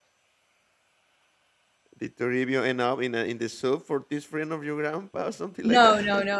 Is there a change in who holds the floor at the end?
Yes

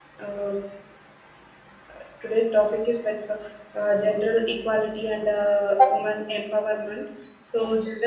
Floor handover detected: No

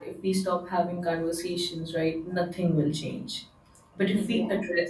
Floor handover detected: No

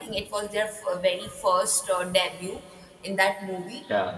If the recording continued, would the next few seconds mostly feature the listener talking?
No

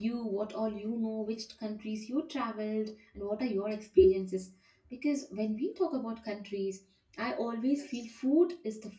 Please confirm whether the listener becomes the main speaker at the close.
No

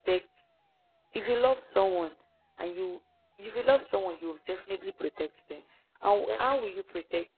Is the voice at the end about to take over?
No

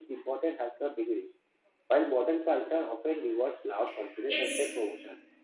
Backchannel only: Yes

